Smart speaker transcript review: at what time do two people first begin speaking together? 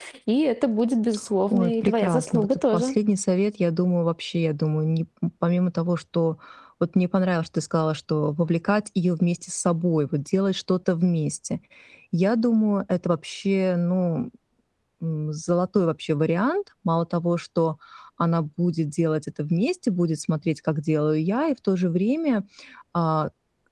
1.5 s

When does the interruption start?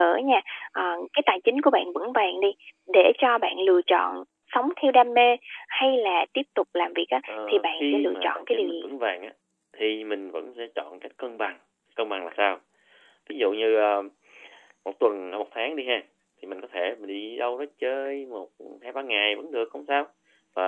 7.3 s

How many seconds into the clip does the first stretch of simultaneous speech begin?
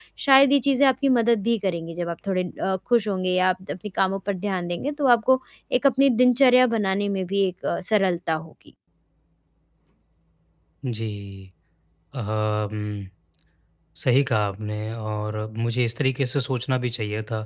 none

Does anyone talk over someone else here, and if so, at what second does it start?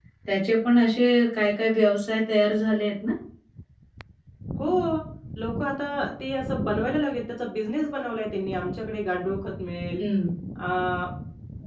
none

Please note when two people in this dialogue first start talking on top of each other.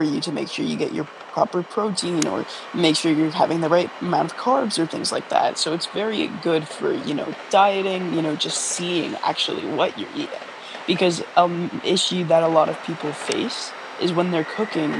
none

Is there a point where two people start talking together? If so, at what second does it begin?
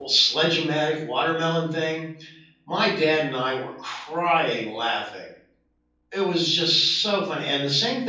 none

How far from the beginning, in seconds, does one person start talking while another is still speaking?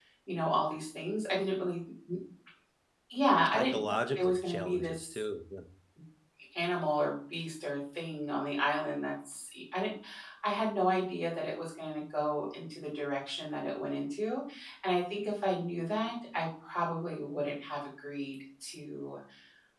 3.5 s

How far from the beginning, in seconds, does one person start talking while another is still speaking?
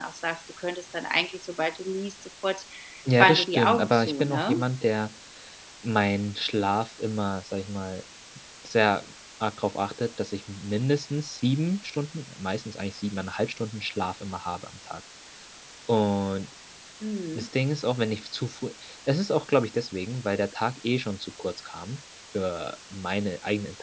3.2 s

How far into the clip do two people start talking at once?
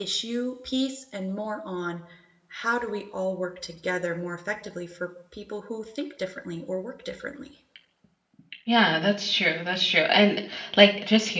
none

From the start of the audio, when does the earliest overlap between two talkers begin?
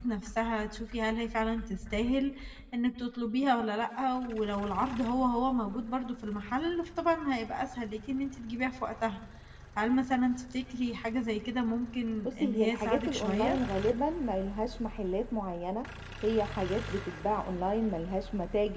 12.2 s

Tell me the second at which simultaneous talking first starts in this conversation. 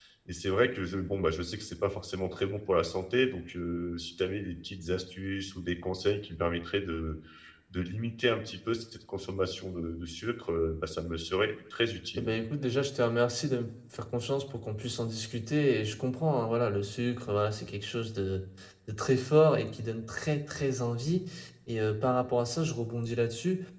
none

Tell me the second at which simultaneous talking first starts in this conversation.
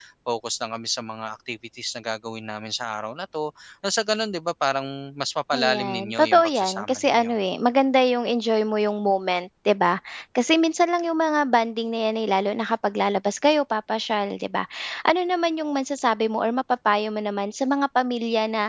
5.5 s

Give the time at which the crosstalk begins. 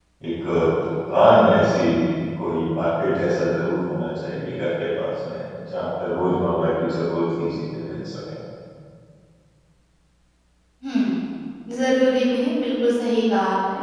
none

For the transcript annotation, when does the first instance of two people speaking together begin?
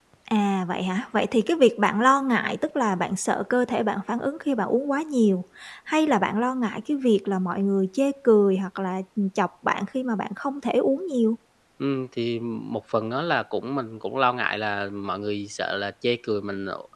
none

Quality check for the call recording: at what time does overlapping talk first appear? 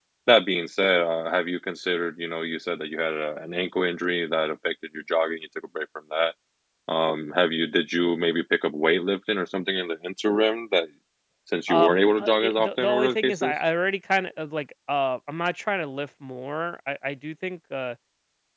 11.7 s

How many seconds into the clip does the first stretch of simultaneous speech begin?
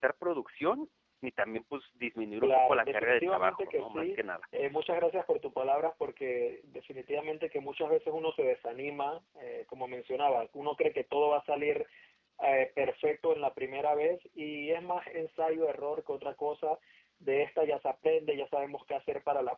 2.4 s

